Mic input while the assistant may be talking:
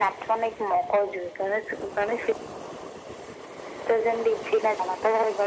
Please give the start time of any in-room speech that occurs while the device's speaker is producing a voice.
none

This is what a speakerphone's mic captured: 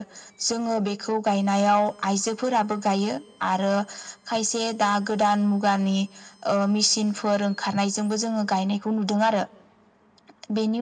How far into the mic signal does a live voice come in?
none

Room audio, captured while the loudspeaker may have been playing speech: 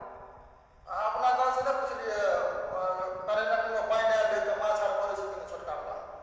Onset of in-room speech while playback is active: none

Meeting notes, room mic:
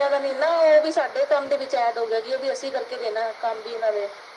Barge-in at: none

